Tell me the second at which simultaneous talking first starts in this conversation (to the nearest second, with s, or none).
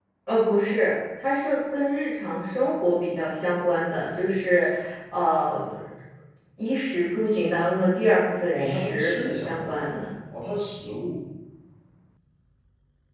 9 s